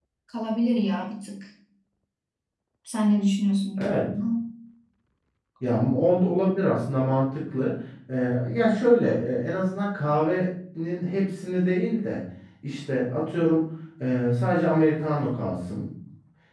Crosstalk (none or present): none